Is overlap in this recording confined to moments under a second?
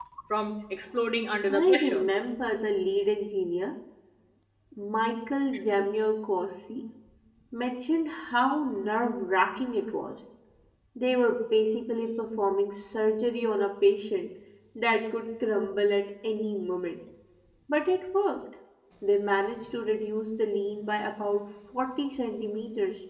Yes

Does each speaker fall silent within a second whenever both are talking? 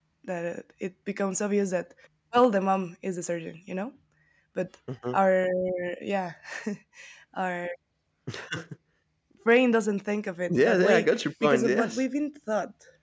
No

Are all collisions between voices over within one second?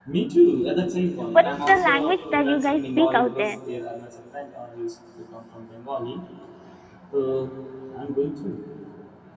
No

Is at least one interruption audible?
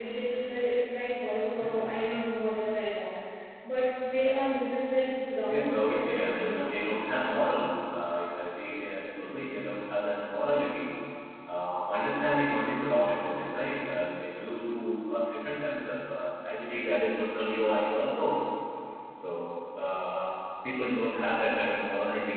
Yes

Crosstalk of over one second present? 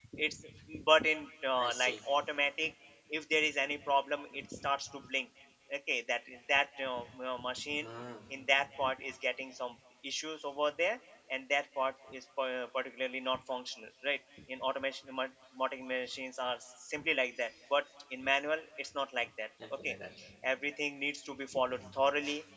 No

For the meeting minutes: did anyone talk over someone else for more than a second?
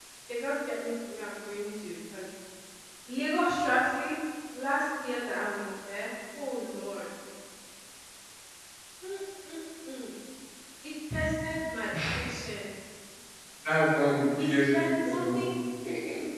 Yes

